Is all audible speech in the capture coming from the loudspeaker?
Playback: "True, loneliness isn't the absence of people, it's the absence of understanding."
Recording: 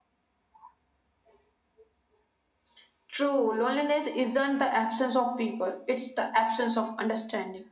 Yes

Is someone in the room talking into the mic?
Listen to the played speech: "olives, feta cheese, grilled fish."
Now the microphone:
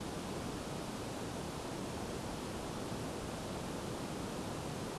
No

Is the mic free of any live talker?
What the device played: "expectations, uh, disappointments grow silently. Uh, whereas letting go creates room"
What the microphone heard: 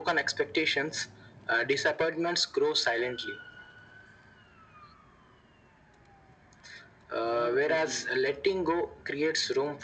No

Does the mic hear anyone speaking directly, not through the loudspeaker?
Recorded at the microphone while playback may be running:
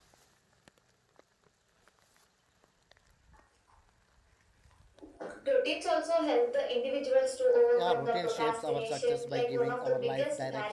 Yes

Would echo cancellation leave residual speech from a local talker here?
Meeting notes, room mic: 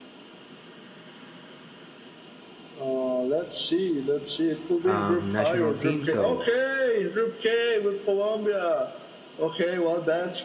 Yes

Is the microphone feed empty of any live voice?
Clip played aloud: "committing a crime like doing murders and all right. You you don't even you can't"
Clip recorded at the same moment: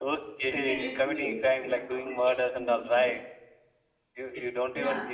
No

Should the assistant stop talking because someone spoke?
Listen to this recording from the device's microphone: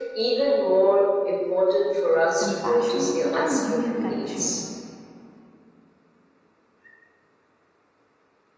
Yes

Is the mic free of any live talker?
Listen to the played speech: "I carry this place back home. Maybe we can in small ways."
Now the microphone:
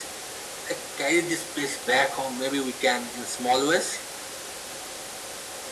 Yes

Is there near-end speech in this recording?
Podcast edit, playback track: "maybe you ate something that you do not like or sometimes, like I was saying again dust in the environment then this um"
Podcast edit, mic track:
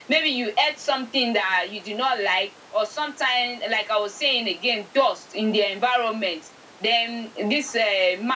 No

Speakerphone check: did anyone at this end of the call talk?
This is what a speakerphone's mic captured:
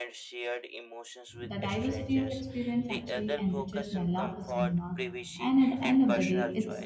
Yes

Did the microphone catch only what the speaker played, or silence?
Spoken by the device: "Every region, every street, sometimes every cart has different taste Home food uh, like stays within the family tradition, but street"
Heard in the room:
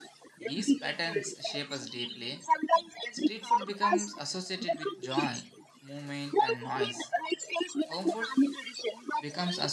No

